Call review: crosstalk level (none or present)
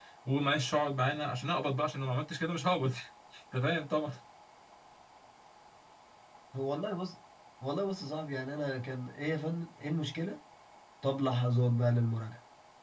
none